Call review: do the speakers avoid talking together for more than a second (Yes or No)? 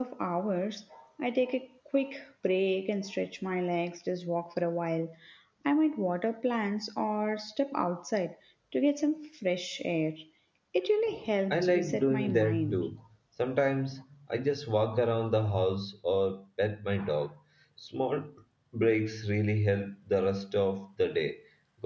No